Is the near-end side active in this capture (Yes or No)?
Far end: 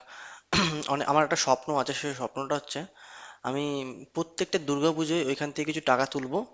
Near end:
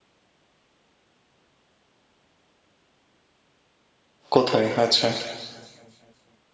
Yes